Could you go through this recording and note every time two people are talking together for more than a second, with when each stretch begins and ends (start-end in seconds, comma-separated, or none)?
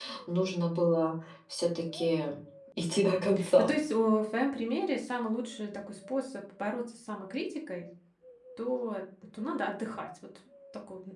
none